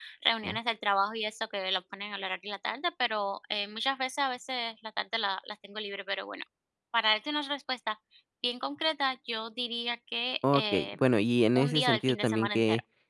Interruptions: present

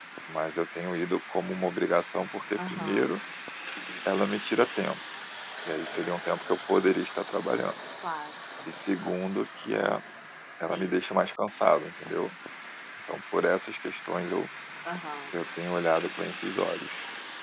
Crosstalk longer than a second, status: none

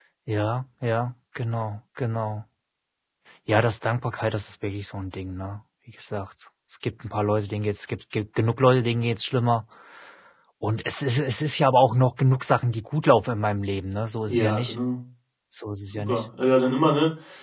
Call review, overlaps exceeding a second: none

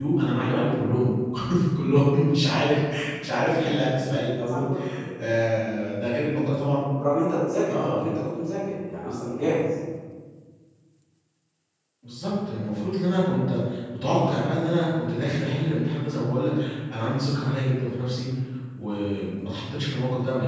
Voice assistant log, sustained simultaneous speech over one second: none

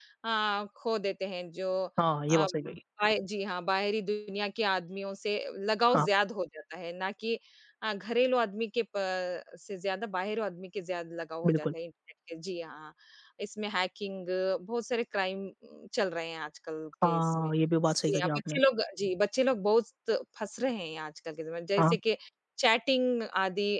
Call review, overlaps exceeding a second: none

